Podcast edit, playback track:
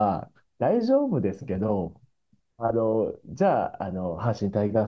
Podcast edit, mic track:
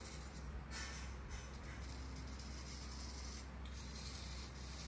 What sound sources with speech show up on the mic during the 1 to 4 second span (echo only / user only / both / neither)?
neither